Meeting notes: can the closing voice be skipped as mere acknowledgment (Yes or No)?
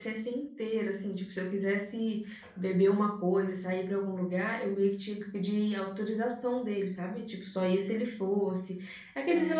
Yes